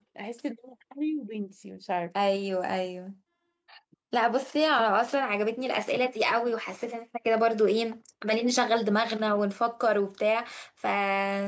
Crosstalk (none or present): none